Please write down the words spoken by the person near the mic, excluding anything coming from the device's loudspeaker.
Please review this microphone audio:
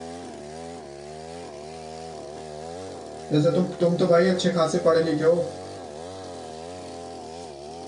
जैसे तुम तुम तो भाई अच्छे खासे पढ़े लिखे हो

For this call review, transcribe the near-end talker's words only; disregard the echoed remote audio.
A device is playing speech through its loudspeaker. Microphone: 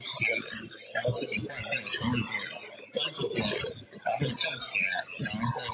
none

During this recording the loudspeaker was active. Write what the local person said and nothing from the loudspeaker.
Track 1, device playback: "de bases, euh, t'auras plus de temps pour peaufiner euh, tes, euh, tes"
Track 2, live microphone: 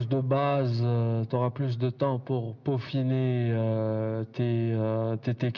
none

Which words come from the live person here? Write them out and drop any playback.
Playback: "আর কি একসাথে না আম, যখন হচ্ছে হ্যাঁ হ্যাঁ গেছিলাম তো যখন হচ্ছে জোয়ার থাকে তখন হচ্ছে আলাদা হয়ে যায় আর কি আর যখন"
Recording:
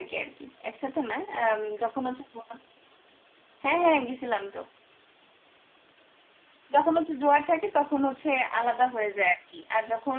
none

